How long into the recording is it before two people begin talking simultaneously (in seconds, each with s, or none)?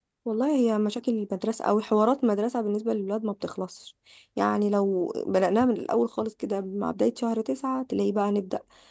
none